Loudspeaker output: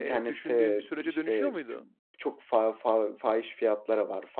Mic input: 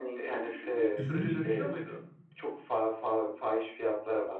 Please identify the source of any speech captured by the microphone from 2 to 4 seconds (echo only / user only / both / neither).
echo only